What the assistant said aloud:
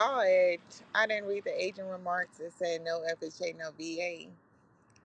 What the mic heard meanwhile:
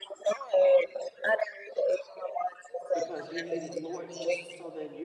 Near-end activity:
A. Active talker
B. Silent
A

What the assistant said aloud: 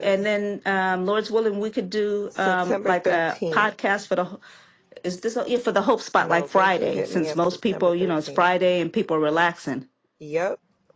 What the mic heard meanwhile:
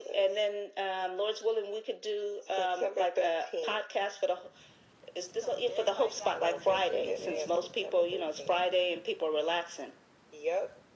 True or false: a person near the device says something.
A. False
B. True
B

